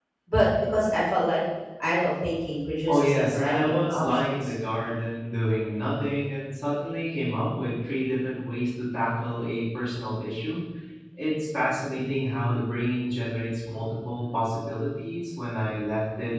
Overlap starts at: 2.9 s

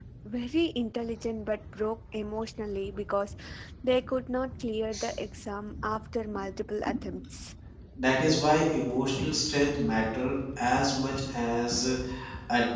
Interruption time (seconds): none

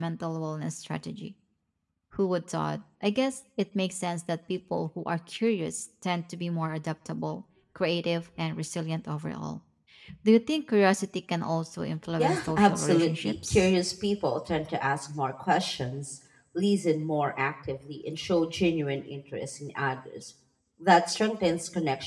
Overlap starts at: 12.2 s

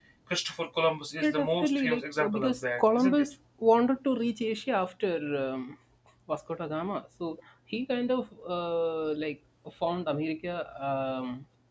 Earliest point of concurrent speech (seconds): 1.2 s

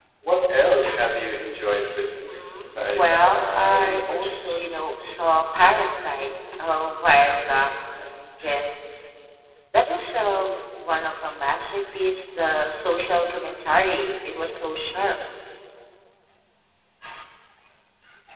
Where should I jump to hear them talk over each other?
1.8 s

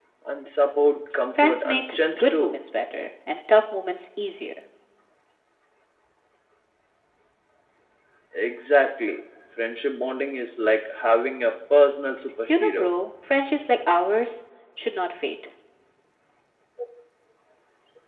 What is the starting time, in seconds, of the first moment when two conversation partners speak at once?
1.4 s

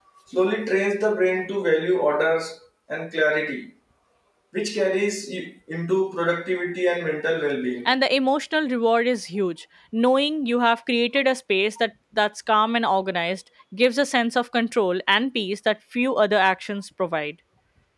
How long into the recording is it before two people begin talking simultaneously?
none

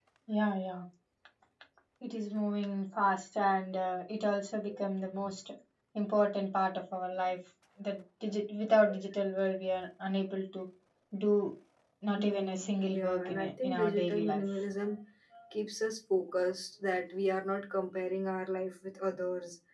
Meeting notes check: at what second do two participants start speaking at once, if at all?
12.1 s

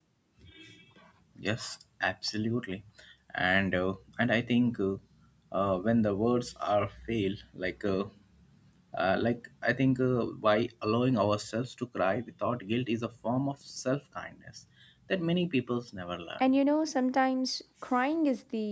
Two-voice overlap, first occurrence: none

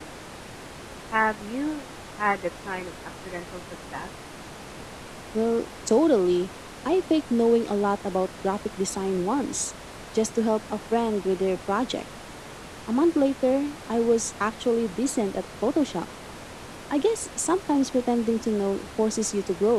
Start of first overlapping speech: none

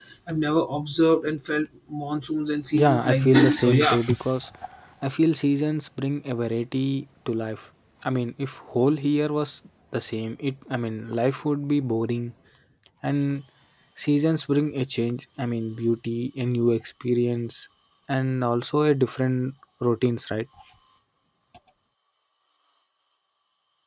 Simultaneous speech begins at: 2.7 s

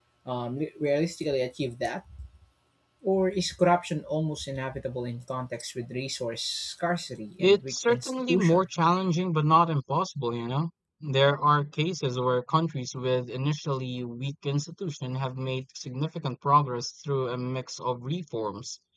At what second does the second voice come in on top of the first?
7.4 s

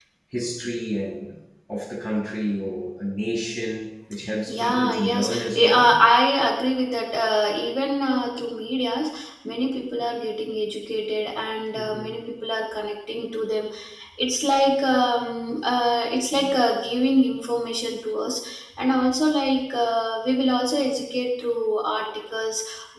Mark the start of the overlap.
4.5 s

